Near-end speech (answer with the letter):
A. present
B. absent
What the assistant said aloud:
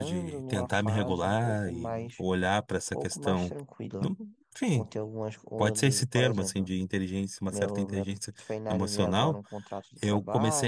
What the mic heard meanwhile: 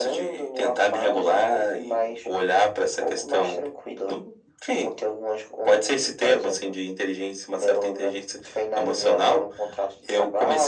B